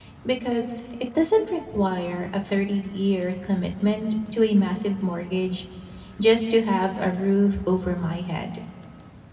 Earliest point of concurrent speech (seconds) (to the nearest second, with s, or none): none